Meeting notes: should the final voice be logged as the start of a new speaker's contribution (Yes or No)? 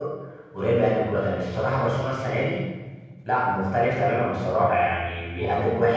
No